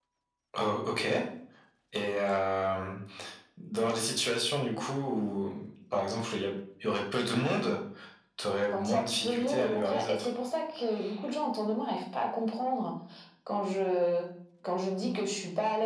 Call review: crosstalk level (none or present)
present